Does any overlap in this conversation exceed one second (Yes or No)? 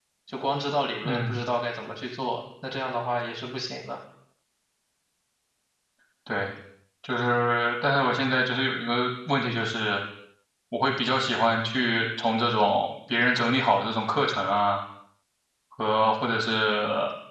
No